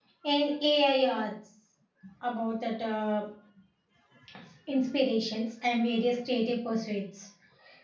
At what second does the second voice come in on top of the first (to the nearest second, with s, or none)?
none